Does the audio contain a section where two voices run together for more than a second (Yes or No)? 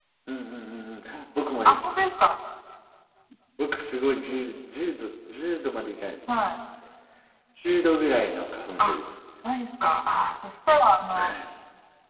No